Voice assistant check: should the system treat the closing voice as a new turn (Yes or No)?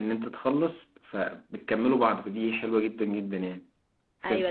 Yes